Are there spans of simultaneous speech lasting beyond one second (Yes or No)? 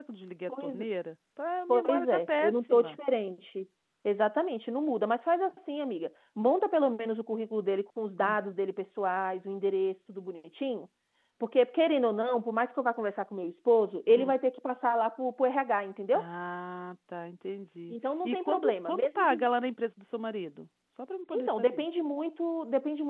Yes